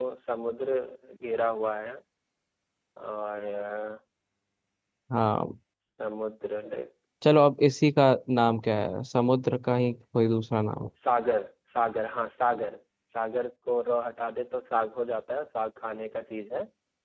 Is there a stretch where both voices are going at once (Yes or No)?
No